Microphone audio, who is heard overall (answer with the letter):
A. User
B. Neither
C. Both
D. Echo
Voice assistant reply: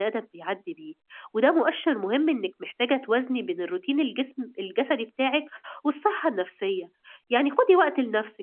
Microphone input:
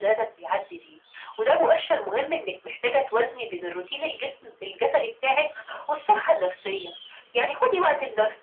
D